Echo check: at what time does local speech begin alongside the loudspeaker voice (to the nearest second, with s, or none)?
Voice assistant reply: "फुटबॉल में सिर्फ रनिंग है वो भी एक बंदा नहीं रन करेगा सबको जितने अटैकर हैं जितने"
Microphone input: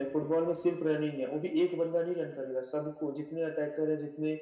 none